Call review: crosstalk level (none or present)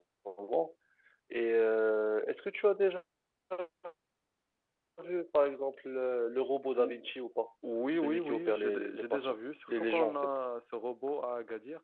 present